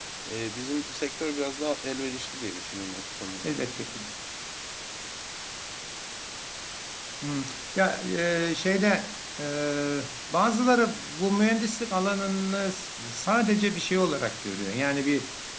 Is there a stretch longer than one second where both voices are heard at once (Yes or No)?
No